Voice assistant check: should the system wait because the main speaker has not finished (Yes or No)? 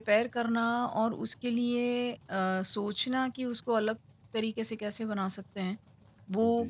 Yes